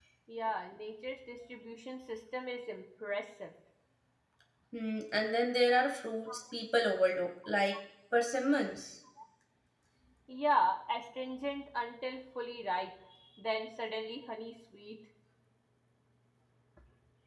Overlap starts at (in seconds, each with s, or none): none